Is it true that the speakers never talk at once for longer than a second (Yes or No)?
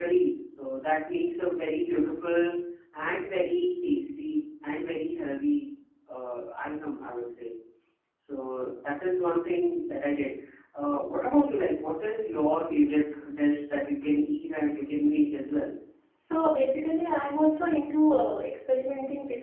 Yes